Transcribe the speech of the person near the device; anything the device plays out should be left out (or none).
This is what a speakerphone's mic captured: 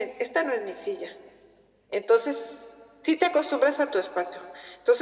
none